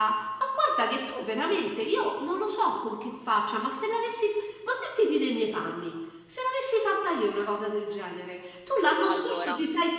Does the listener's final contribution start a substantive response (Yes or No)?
No